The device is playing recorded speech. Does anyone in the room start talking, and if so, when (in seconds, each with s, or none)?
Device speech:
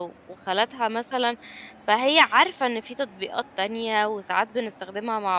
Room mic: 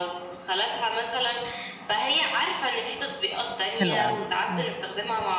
3.8 s